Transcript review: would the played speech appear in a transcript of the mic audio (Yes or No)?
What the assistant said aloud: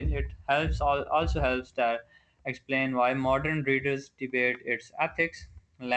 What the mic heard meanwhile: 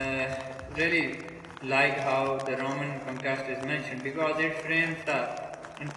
No